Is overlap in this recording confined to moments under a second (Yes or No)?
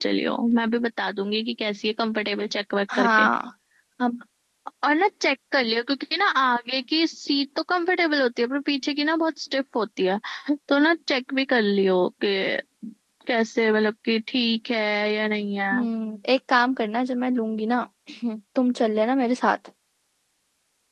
Yes